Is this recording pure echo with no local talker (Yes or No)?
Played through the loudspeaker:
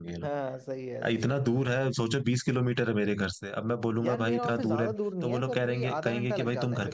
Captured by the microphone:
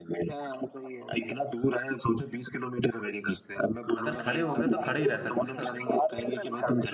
No